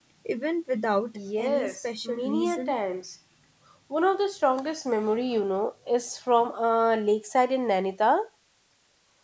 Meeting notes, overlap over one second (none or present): present